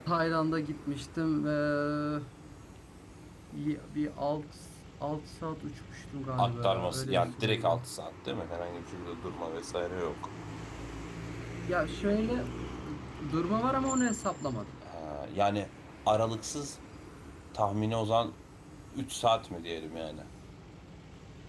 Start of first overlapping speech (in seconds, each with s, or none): 6.4 s